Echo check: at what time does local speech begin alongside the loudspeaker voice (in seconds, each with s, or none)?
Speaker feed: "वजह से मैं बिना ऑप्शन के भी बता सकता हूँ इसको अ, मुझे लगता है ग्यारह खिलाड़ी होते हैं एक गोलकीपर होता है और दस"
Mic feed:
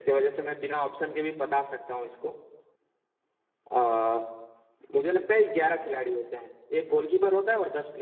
none